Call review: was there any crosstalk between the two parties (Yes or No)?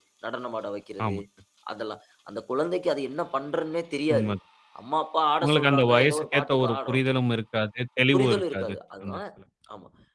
Yes